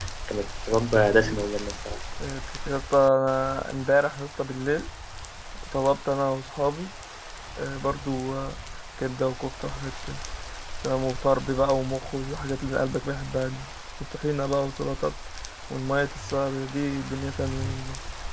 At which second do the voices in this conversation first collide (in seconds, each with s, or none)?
none